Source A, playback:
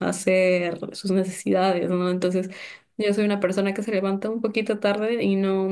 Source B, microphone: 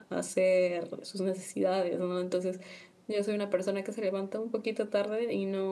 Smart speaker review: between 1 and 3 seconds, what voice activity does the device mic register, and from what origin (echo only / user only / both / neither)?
echo only